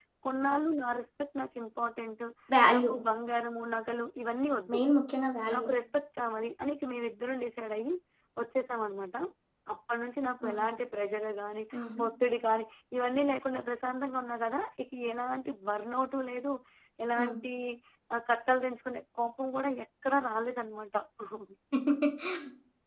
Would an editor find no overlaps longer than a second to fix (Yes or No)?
Yes